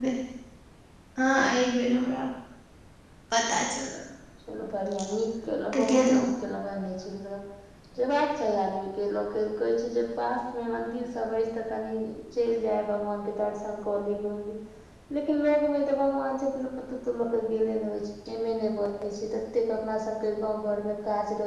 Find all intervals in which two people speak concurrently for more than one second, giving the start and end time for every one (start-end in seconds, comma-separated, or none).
none